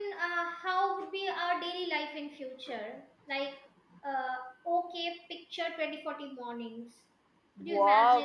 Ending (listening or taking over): taking over